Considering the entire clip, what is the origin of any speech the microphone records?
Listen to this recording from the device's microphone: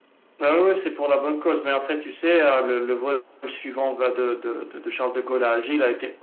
echo only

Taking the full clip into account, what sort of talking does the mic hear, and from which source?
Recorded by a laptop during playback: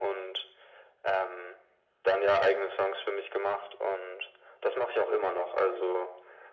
echo only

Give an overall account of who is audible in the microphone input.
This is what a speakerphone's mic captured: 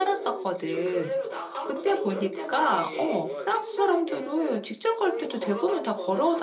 both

